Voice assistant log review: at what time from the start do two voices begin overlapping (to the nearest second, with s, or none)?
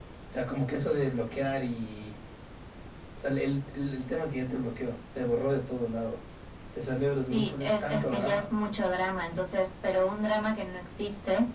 7 s